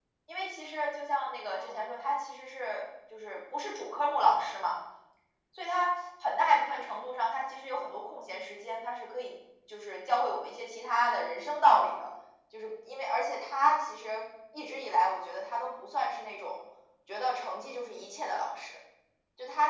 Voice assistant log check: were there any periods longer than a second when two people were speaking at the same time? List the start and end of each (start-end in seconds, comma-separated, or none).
none